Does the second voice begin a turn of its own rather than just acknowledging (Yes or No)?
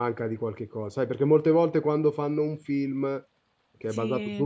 No